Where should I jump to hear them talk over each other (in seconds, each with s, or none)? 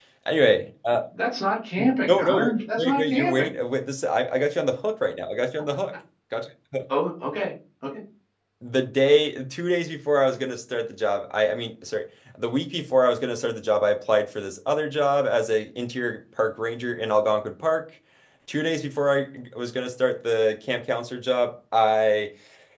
2.1 s